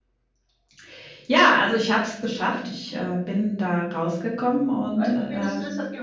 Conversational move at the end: taking over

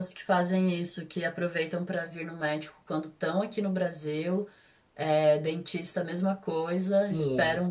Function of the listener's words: listening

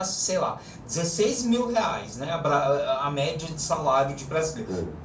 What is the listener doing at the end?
listening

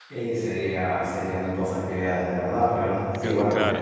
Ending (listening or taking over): listening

